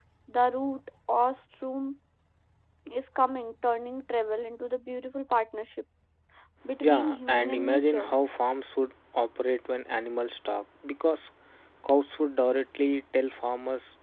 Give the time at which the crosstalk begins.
6.8 s

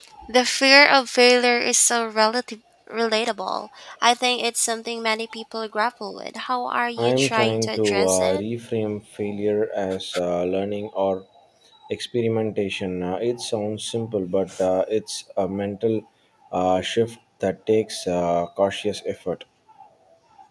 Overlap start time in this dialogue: 7.0 s

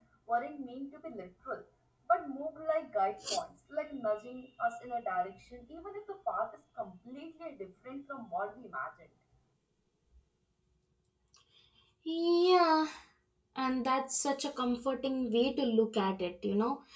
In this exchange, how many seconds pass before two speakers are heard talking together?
none

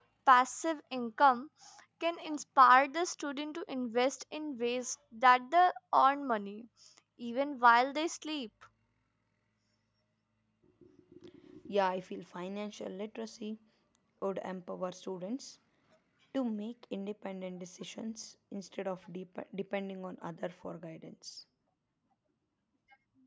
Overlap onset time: none

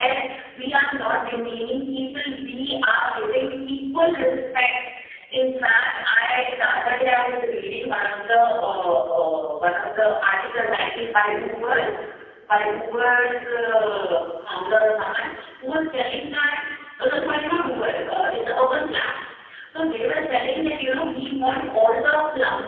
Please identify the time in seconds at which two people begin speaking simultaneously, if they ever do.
none

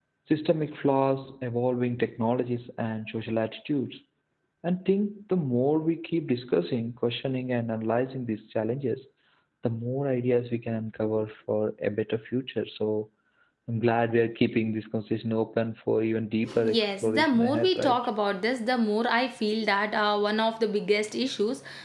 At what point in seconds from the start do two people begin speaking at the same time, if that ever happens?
16.5 s

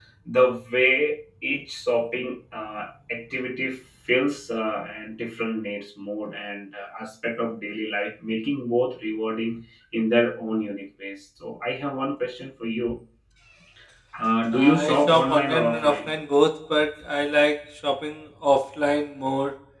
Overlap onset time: 14.5 s

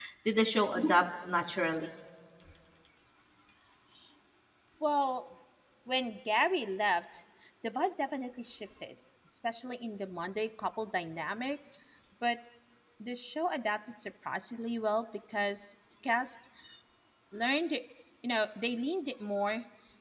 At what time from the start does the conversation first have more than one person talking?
none

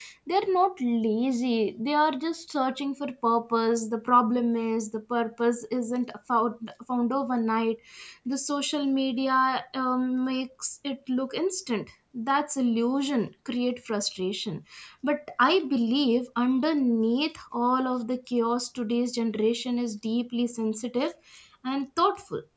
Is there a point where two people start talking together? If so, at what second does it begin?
none

